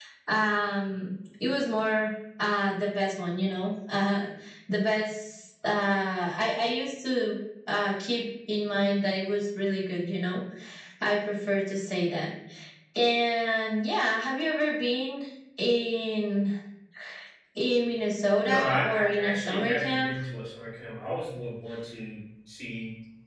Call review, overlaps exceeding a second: present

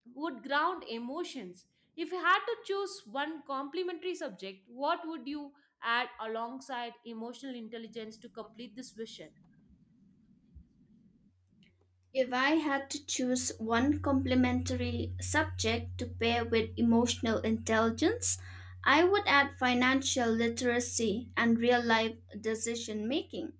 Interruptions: none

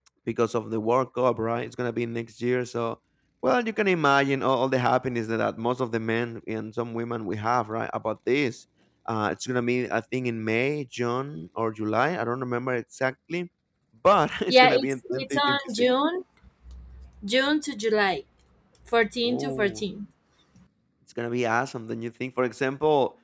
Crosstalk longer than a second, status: present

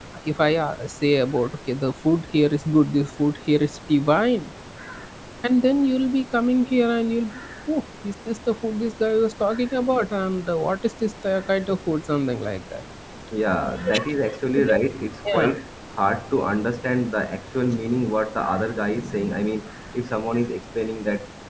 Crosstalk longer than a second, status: none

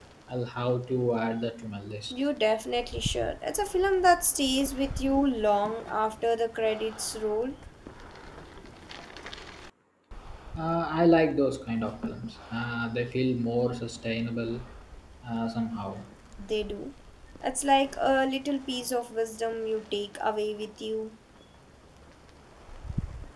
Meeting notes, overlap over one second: none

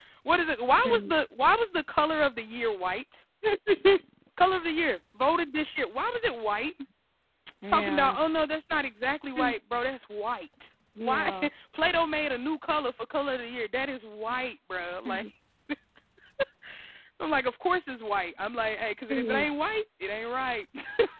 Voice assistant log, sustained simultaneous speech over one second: none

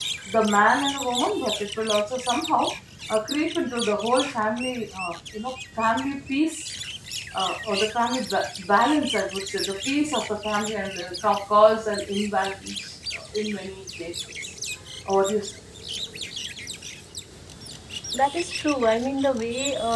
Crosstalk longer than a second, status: none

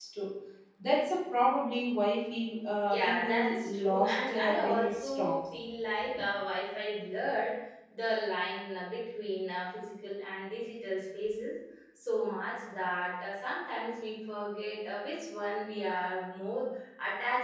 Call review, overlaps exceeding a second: present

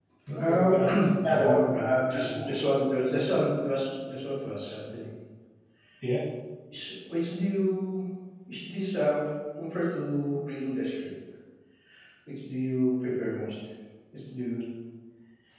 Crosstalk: present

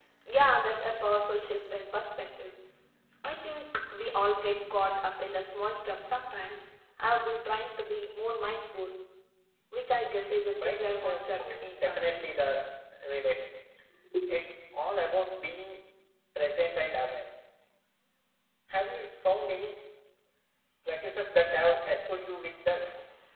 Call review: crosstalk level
present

